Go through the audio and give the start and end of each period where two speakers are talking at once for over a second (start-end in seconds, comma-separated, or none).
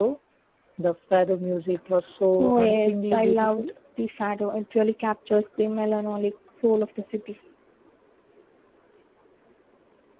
2.4-3.6